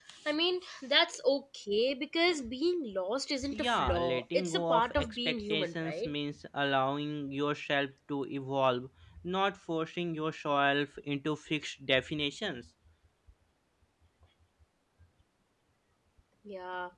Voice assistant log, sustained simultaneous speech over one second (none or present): present